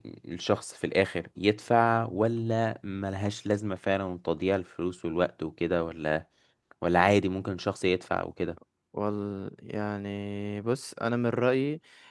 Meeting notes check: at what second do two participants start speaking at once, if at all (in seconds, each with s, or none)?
none